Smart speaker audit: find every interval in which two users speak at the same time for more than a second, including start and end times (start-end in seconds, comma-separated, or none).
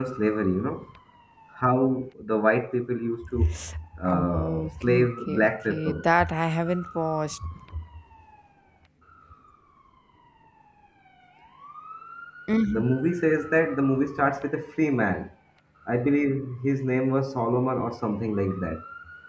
4.0-6.0